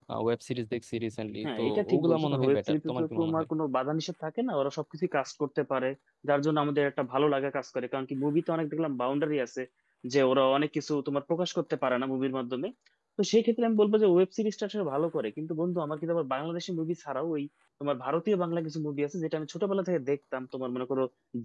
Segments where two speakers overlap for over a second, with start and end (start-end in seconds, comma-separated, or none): 1.4-3.5